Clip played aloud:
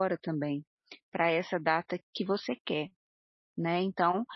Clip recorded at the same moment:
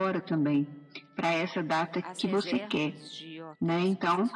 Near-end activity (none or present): present